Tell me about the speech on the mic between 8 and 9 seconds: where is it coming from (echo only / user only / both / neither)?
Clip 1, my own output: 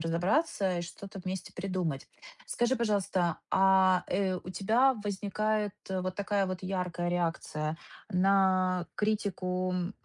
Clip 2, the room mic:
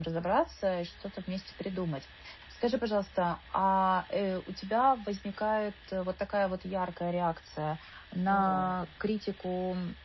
both